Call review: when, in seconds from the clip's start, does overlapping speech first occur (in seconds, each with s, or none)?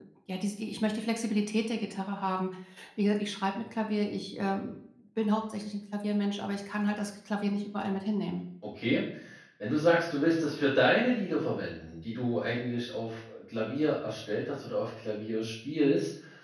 none